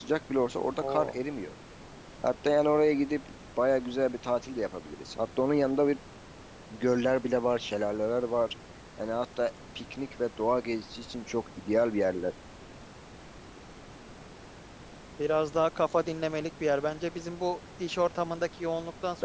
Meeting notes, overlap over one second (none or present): none